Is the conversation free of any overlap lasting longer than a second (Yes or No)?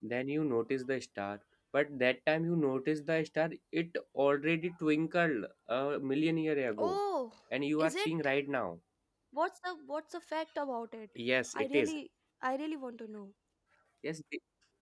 Yes